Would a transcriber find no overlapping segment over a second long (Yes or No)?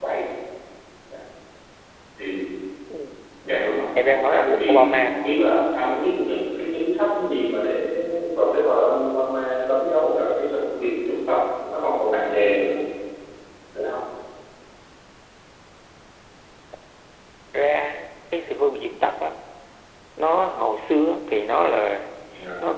No